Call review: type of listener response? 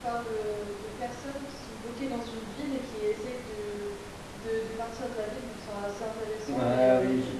taking over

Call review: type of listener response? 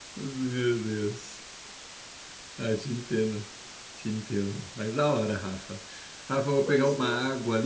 listening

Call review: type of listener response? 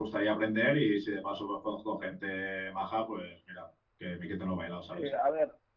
taking over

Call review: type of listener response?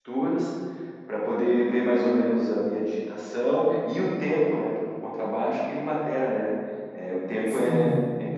taking over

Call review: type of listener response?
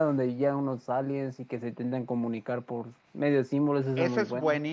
taking over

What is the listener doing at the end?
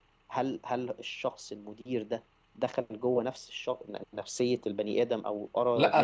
taking over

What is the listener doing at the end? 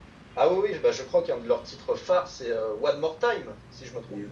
taking over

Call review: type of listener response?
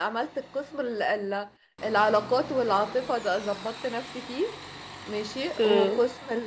listening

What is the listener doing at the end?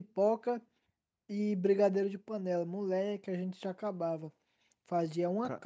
listening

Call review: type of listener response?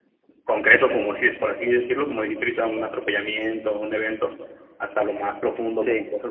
listening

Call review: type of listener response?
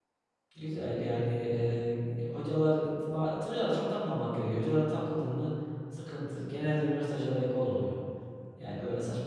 listening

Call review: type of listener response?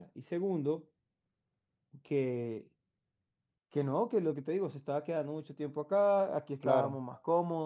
listening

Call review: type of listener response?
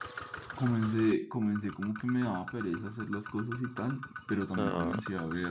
listening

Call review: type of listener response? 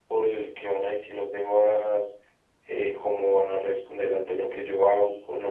taking over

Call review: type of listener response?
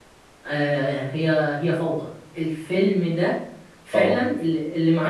listening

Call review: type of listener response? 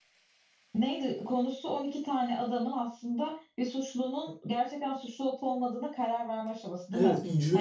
taking over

